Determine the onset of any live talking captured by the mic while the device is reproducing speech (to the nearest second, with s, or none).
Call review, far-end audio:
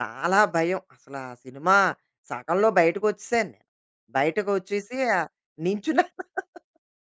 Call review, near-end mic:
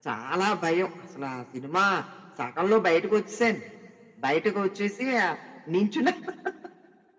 none